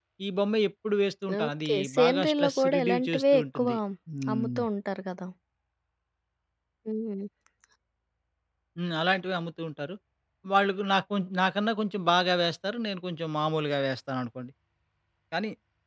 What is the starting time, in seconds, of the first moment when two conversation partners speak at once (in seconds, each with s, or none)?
1.4 s